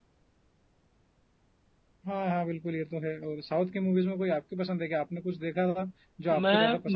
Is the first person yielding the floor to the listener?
Yes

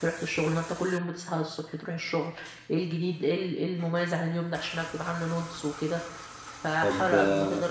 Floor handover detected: Yes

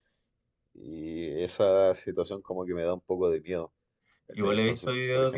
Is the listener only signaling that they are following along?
No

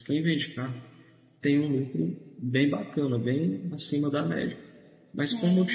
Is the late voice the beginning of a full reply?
No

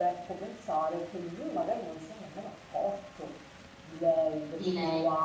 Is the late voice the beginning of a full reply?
No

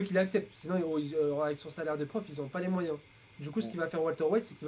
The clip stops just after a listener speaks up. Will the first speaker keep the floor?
Yes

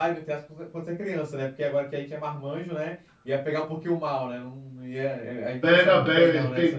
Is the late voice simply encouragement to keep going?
No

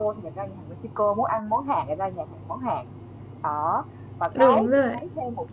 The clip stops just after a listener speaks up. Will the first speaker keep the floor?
Yes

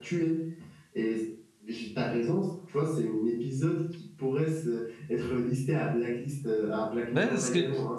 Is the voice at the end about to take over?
Yes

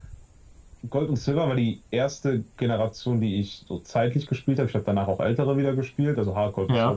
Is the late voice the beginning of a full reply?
No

